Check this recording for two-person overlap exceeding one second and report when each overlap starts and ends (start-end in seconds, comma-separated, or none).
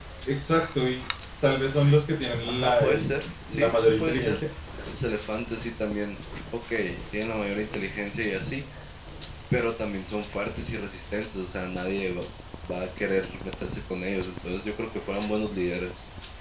2.5-4.4